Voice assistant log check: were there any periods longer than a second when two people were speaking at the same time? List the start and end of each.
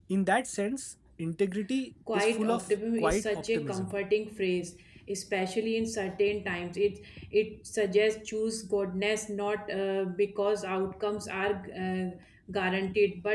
2.1-3.9

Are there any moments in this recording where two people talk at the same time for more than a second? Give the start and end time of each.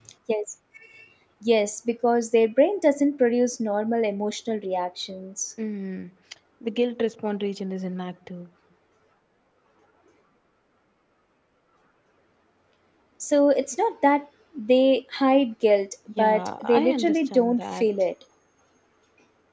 16.2-17.9

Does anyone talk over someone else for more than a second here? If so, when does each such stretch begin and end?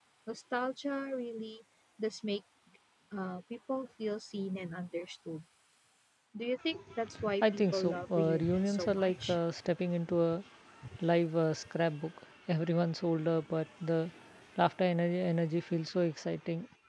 7.4-9.4

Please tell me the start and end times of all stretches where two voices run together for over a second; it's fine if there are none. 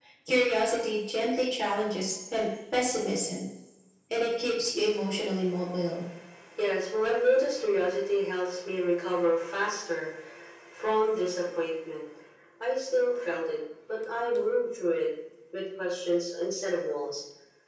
none

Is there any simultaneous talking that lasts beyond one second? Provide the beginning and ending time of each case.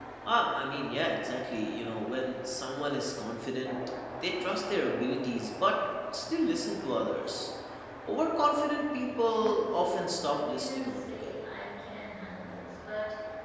9.2-11.6

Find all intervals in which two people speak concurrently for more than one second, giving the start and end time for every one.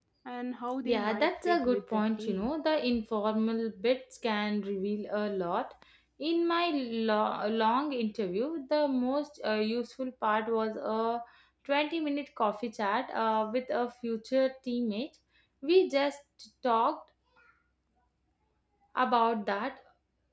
0.8-2.5

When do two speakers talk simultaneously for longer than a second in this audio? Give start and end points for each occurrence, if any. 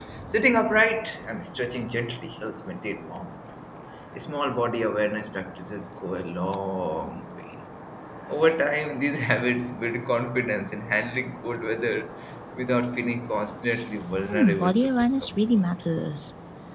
14.3-15.6

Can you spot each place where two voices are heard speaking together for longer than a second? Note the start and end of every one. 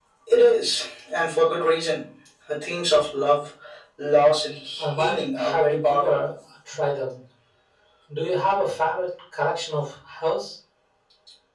4.8-6.2

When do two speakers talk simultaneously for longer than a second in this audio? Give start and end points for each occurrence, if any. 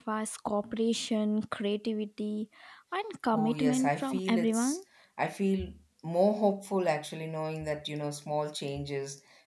3.3-4.8

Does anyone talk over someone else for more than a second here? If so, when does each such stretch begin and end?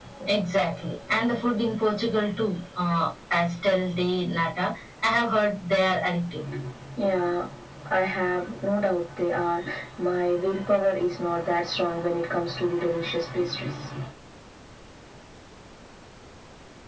none

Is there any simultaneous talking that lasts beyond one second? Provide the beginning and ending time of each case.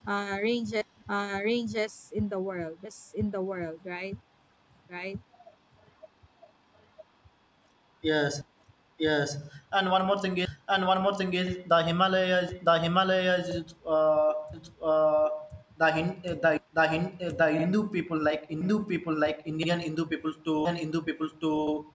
none

